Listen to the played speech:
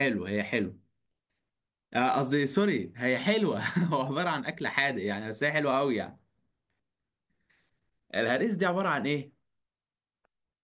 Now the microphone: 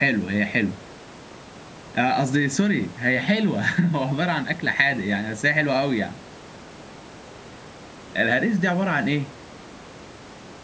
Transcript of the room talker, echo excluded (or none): none